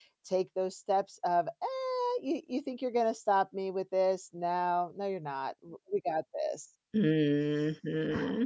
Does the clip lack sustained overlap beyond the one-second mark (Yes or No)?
Yes